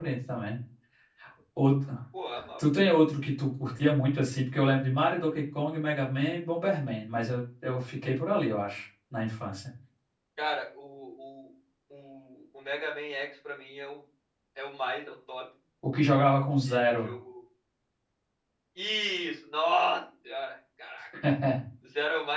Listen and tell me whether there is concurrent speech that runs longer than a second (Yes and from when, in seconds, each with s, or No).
No